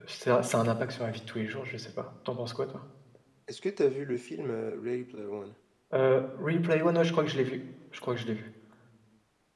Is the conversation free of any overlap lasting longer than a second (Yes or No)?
Yes